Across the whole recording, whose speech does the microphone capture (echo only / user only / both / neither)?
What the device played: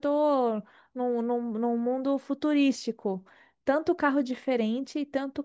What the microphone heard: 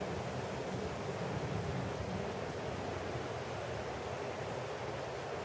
neither